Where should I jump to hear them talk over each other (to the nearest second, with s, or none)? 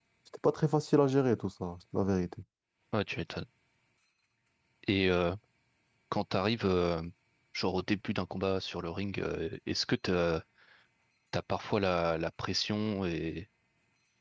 none